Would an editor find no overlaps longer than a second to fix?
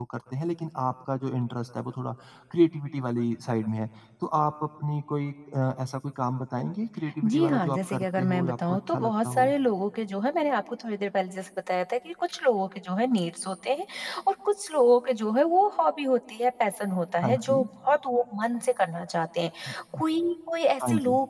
No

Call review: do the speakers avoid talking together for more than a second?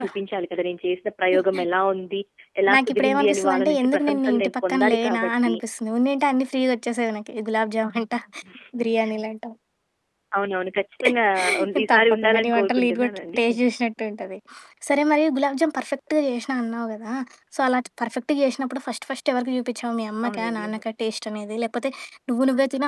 No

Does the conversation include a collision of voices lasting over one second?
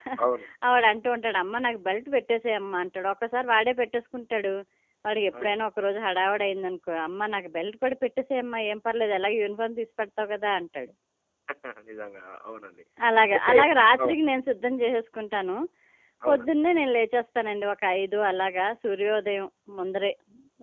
No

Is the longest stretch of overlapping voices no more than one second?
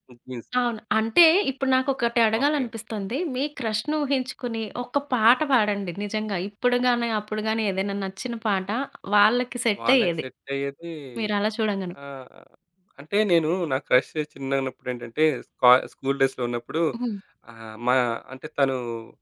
Yes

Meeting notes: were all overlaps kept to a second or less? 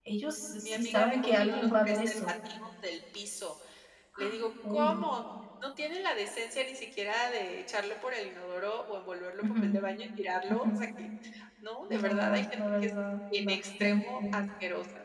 No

